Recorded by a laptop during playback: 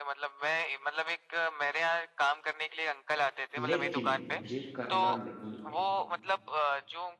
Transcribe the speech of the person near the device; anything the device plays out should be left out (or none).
लेकिन मुझे करना नहीं है